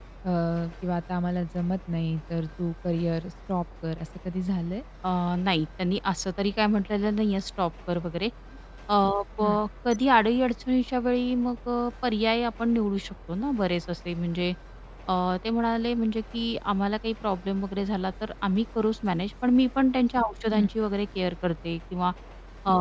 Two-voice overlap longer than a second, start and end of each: none

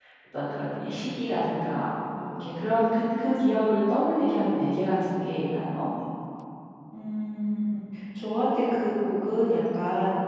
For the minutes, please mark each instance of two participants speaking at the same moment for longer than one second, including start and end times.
none

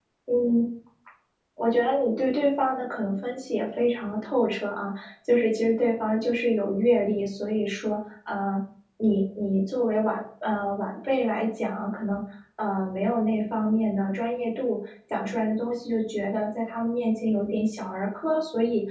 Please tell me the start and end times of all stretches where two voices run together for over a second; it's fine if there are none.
none

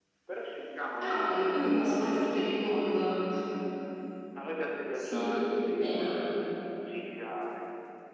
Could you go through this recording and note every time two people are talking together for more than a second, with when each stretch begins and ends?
none

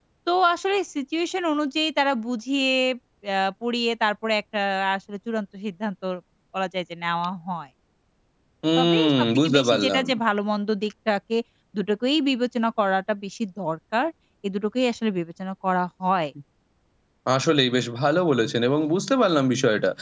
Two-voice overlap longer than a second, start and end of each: 8.8-10.0

